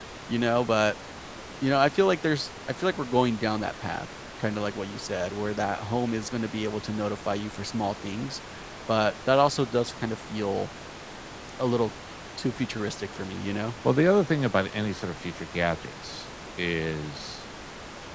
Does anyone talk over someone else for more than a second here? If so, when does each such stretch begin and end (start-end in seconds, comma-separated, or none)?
none